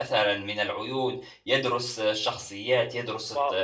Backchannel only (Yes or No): No